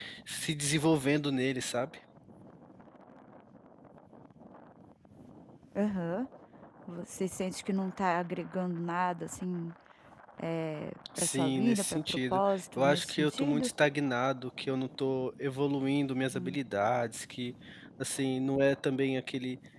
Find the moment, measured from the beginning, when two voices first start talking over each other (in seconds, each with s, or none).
11.2 s